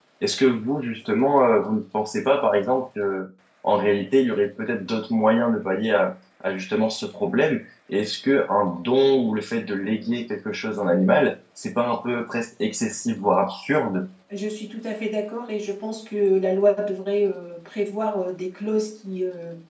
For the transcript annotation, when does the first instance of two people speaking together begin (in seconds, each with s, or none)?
none